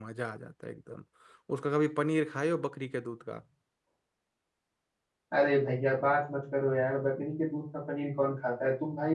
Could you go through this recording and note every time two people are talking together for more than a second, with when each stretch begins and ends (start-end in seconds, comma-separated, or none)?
none